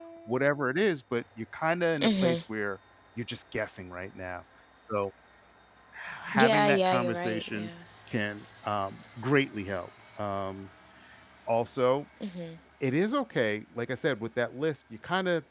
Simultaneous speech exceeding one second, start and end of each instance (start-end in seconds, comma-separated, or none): 6.3-7.7